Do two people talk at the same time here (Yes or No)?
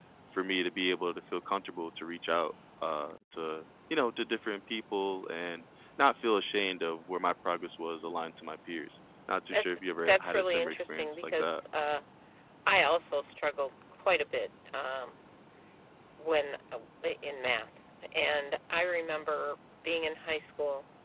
Yes